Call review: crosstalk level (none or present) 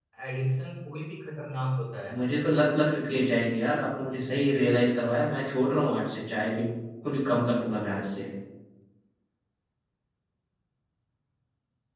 none